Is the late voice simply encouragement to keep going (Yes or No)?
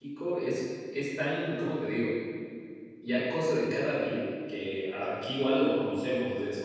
Yes